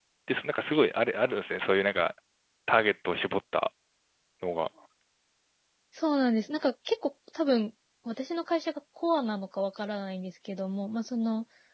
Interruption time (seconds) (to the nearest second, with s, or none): none